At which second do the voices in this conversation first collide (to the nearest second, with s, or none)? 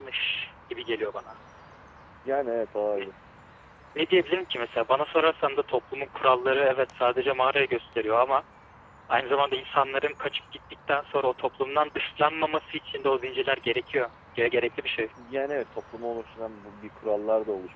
none